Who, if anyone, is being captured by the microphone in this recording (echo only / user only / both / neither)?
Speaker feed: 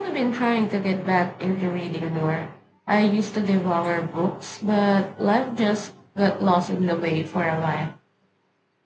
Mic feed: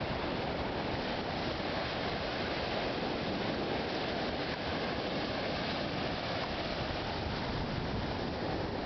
neither